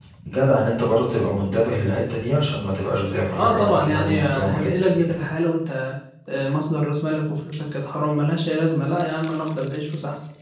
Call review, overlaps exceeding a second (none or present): present